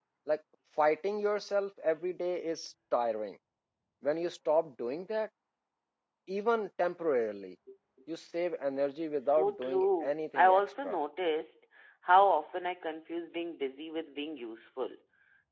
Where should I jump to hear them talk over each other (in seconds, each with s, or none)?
9.2 s